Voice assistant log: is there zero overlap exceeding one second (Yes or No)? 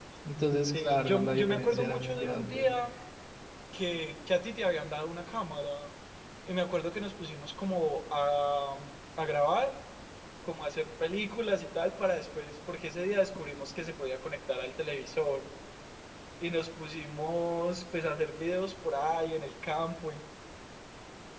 No